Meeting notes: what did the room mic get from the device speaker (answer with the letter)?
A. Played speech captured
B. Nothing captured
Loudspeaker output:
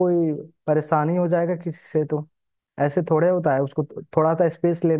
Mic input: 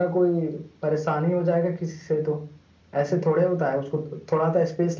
A